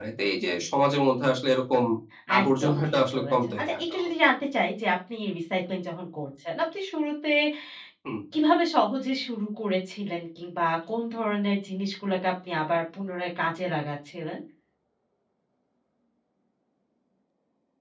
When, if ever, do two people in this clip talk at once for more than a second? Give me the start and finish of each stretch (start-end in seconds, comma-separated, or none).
2.4-4.1